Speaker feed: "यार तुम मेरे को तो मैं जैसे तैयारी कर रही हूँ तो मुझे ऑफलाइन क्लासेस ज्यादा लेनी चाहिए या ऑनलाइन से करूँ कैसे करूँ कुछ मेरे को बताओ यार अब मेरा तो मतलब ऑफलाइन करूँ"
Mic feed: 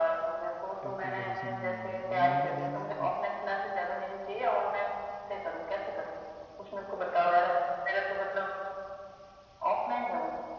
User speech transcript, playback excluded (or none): बिल्कुल भरोसा नहीं ऑनलाइन ऑनलाइन भी लेना है